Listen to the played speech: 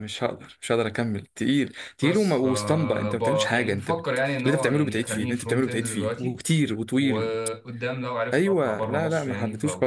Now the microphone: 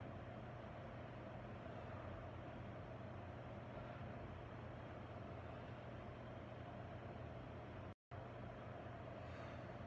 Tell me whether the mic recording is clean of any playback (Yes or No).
Yes